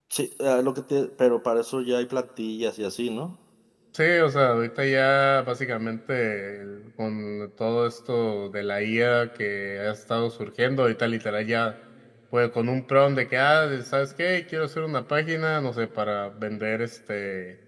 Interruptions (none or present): none